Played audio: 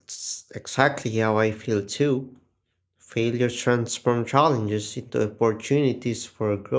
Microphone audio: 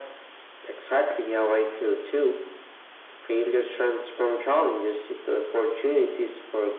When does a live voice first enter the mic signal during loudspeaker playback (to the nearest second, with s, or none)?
none